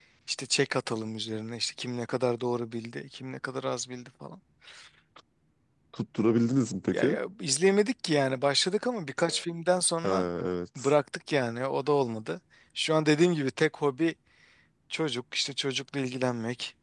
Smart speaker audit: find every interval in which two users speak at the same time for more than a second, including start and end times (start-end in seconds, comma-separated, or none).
none